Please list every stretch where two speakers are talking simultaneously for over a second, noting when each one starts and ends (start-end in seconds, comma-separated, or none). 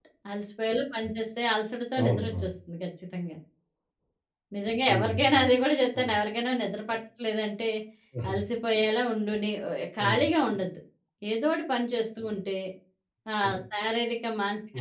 none